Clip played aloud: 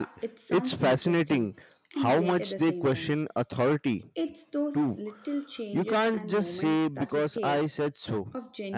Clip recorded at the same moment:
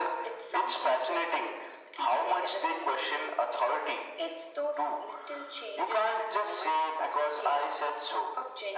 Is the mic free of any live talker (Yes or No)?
Yes